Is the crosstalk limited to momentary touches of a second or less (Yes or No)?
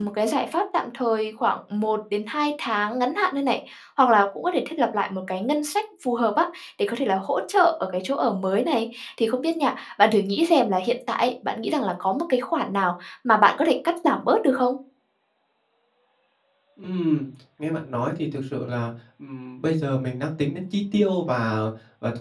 Yes